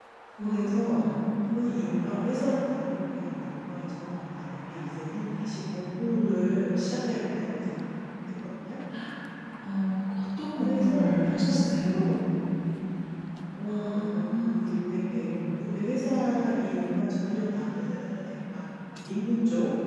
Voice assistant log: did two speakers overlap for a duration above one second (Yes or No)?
Yes